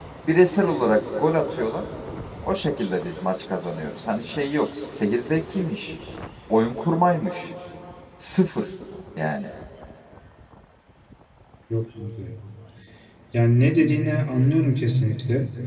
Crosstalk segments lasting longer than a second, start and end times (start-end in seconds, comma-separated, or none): none